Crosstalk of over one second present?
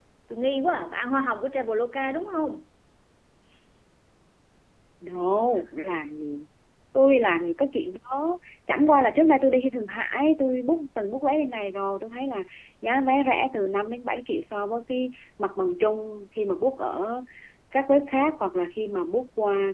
No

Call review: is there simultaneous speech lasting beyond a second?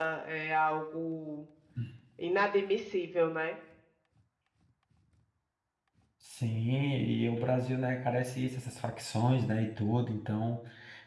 No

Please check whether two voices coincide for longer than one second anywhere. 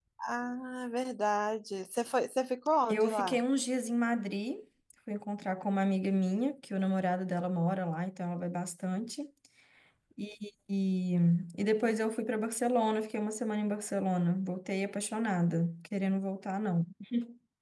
No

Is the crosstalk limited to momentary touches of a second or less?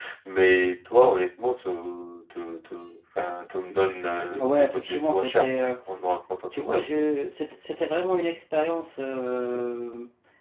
No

